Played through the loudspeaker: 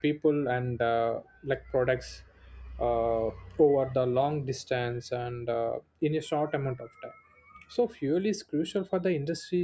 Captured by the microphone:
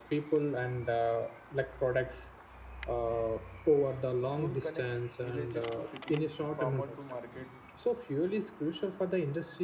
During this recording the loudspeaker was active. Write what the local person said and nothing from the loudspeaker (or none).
Fuel connects villages to cities, farmer to market,